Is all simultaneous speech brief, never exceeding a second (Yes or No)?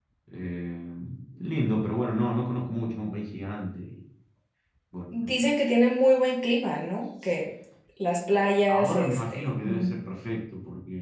No